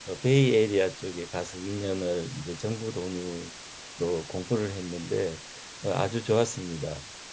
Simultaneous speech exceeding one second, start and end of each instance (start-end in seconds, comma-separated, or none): none